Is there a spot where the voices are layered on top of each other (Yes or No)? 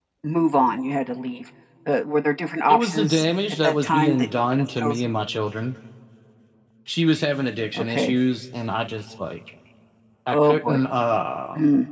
Yes